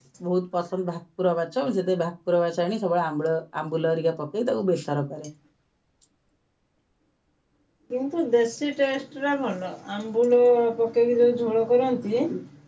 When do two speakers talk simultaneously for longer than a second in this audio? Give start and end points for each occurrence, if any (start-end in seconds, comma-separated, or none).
none